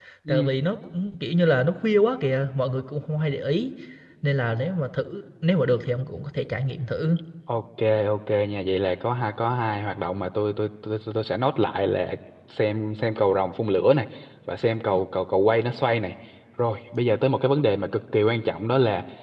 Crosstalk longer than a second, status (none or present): none